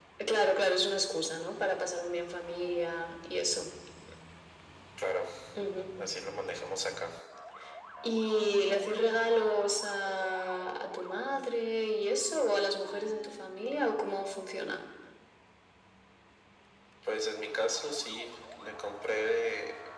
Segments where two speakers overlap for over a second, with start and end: none

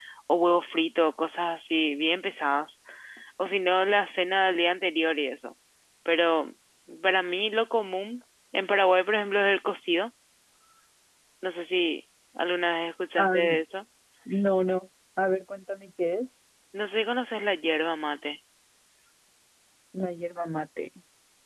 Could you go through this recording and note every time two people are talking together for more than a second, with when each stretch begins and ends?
none

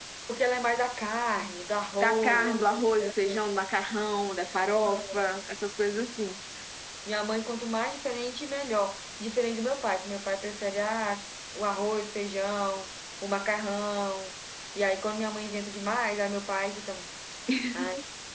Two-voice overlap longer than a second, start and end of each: 2.0-3.4

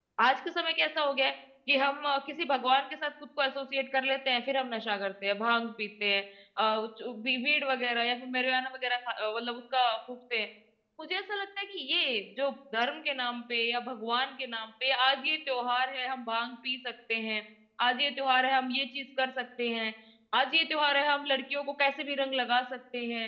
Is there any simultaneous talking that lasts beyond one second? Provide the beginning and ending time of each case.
none

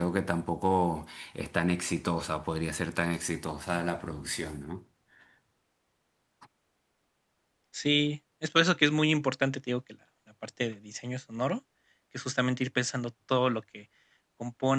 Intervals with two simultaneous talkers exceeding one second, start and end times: none

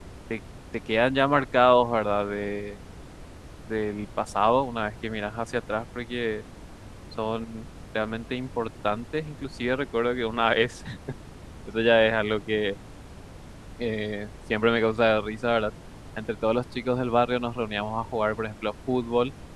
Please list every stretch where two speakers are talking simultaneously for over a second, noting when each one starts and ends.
none

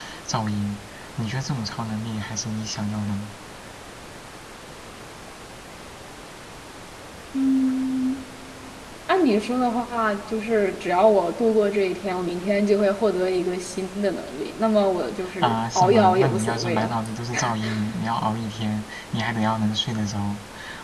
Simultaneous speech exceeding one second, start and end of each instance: 15.4-17.0

